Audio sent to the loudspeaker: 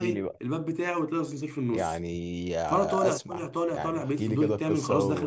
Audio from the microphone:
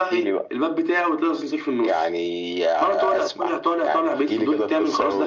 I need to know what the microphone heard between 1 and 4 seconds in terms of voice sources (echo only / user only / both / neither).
echo only